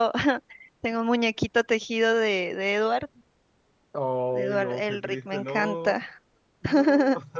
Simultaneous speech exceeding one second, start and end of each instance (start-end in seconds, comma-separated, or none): 4.3-6.0